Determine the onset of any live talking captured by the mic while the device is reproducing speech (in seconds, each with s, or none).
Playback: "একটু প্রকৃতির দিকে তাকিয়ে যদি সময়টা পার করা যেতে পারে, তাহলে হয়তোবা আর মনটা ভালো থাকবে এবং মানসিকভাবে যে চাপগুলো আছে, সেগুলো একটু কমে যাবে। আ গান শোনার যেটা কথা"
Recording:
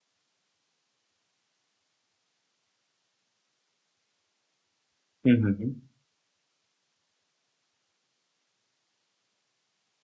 5.2 s